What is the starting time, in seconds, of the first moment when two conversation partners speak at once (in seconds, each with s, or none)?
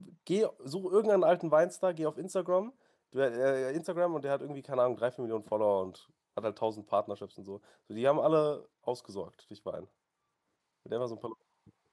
none